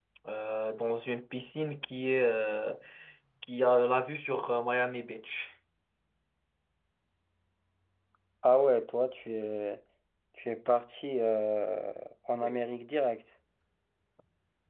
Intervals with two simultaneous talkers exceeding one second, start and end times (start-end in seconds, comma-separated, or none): none